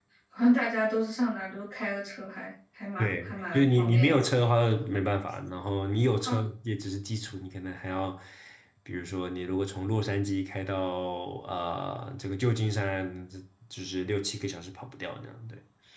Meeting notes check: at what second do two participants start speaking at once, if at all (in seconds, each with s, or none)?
3.0 s